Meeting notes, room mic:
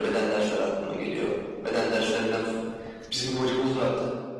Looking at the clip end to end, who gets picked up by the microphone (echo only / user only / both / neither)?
echo only